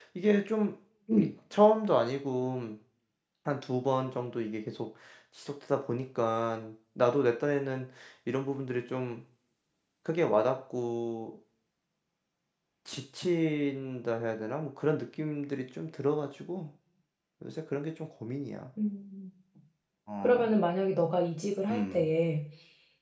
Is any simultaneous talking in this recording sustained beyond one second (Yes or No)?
No